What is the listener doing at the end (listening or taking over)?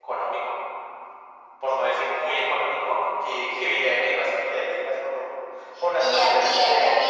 taking over